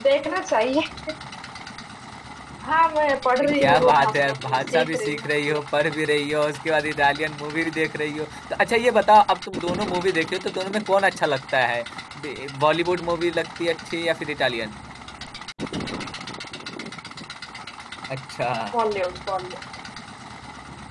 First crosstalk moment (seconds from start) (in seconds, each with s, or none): 3.4 s